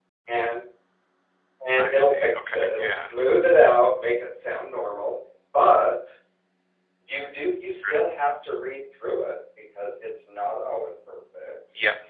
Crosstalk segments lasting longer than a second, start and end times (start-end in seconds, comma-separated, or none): 1.8-3.1